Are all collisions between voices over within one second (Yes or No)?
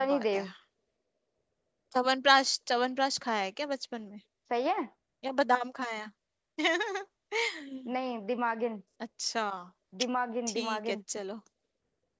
Yes